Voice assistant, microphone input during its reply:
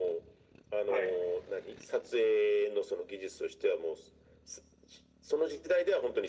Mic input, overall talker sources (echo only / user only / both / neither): both